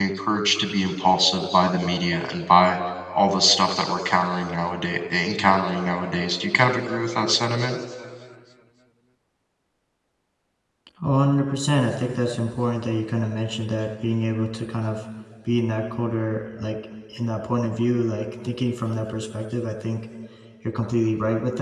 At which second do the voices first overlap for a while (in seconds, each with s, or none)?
none